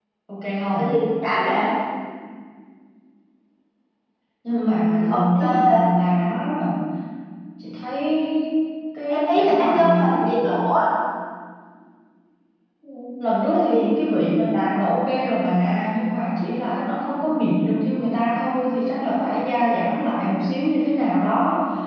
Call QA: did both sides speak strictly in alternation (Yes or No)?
No